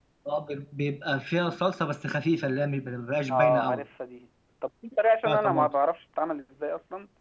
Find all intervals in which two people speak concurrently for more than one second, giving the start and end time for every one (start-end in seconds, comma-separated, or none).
none